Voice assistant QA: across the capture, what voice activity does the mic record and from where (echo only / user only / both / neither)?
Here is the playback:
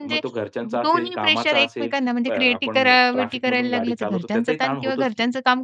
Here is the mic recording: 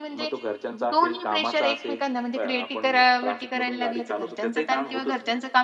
echo only